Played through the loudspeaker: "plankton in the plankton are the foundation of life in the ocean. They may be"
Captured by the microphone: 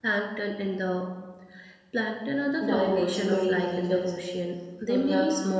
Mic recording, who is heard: both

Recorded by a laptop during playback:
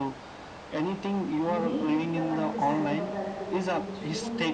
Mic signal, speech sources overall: both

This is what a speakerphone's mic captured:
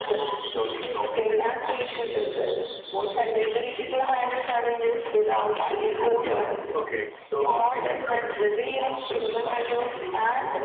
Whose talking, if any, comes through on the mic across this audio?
both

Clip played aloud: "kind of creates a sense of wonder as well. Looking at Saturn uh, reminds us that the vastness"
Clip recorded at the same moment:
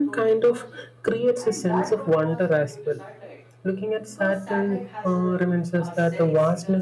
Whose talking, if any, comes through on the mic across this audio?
both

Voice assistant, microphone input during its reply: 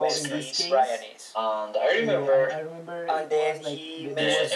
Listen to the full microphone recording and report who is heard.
both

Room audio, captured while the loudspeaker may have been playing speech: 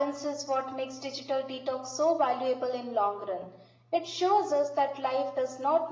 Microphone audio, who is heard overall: echo only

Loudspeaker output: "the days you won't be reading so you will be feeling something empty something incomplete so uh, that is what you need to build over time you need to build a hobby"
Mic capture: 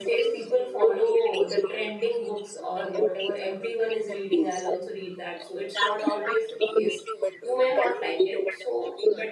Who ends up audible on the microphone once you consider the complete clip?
both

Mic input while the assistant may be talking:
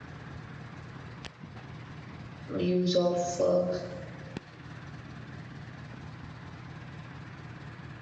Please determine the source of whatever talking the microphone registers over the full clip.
user only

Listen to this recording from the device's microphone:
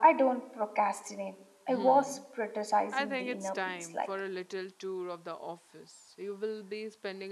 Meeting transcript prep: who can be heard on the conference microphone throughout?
both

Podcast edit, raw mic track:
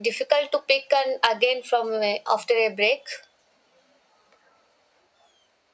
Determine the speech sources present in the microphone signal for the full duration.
echo only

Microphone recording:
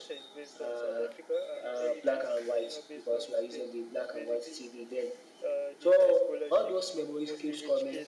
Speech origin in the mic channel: echo only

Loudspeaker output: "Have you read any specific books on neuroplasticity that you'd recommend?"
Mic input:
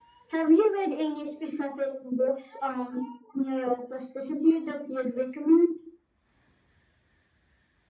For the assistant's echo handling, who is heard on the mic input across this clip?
echo only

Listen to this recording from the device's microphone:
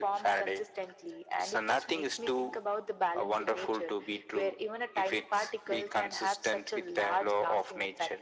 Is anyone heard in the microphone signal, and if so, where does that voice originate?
echo only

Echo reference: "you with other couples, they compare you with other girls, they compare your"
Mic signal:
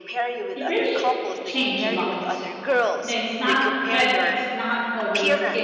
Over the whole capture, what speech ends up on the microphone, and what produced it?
both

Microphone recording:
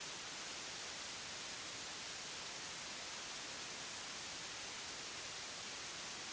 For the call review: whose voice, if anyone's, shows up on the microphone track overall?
neither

